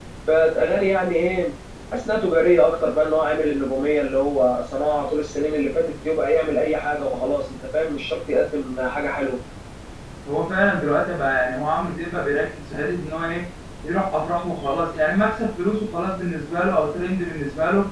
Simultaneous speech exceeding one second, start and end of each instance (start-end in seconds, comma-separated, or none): none